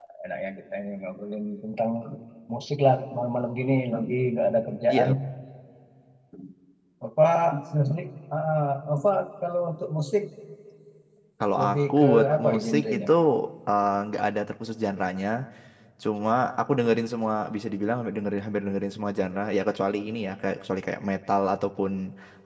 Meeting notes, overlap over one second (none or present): present